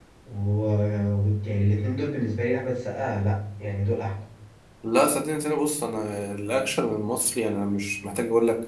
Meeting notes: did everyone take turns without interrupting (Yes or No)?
Yes